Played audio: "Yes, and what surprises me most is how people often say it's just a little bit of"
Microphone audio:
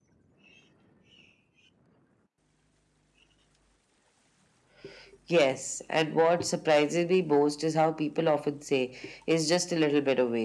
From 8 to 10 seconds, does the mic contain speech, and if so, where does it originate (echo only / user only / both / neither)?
echo only